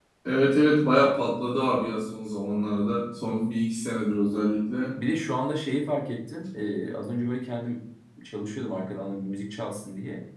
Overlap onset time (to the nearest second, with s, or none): none